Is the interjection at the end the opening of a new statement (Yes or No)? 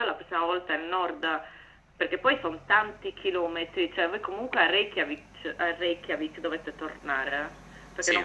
No